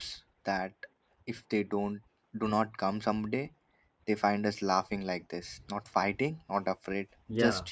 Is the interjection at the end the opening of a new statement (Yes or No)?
Yes